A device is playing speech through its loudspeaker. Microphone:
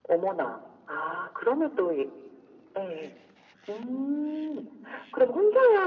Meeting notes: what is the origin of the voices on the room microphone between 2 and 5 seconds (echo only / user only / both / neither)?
echo only